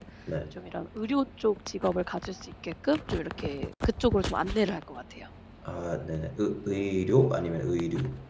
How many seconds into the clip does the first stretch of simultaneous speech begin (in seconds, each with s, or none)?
none